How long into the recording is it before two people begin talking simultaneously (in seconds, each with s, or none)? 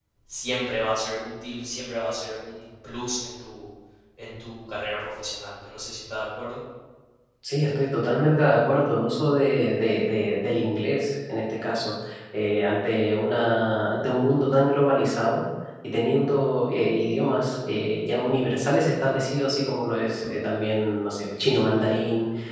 none